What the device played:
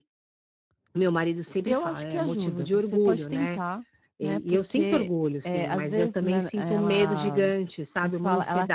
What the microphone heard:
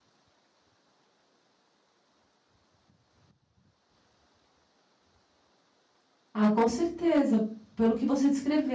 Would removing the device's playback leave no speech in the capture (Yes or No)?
No